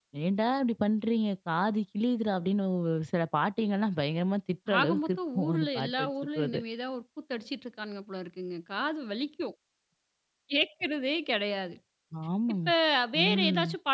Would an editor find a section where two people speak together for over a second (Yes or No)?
Yes